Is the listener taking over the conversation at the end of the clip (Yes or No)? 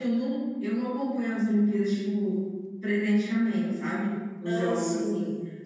No